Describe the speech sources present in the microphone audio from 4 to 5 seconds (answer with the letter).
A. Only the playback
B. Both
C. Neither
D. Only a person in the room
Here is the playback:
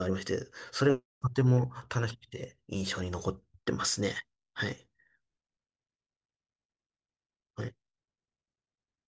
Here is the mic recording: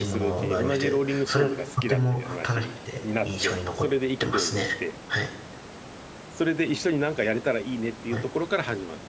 B